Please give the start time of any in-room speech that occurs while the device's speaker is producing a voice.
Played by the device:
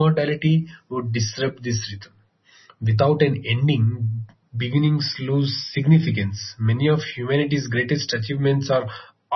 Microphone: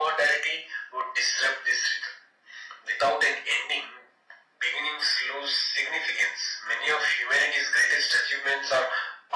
none

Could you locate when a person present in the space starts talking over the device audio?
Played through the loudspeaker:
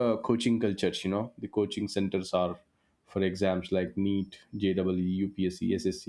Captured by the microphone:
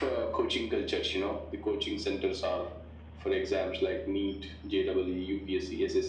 none

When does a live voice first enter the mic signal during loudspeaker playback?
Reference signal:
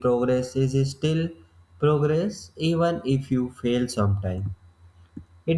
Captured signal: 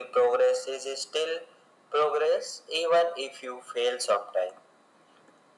none

